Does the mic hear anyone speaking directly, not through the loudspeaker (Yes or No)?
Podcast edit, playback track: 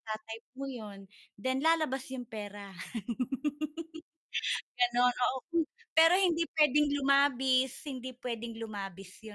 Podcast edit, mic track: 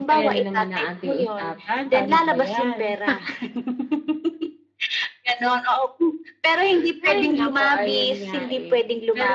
Yes